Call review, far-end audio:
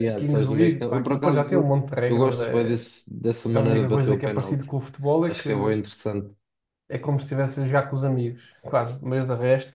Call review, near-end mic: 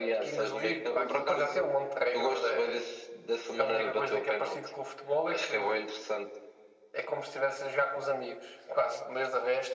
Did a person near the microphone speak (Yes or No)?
No